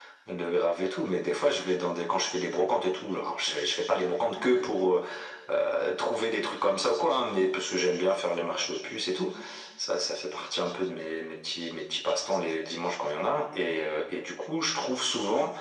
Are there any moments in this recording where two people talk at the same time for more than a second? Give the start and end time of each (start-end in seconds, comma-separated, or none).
none